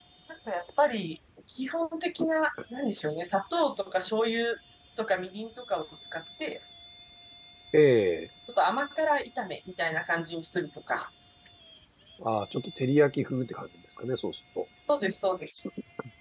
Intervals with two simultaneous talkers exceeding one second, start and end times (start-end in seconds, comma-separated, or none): none